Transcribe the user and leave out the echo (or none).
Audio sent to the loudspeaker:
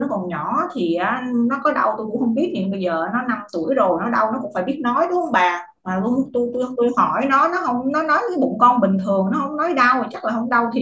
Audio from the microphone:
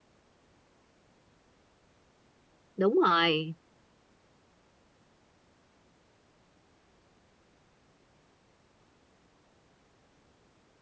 đúng rồi